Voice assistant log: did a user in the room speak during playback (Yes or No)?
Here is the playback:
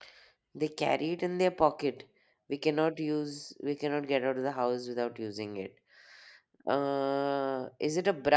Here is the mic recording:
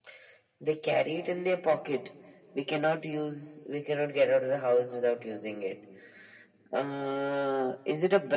No